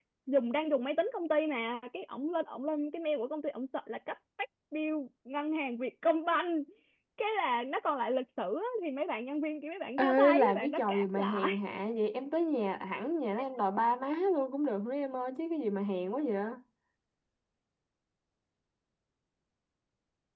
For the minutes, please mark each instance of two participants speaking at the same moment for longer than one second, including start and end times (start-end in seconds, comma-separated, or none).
10.0-11.5